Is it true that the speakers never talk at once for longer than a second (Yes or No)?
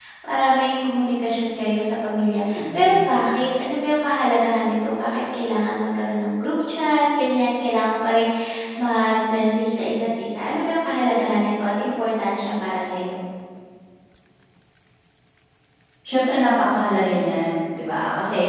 Yes